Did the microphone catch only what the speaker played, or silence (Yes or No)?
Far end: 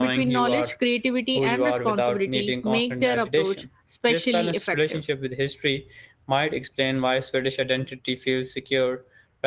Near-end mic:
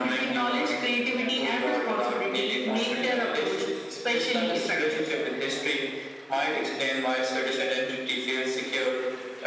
No